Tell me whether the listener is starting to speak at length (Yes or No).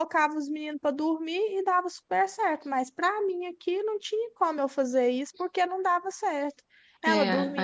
No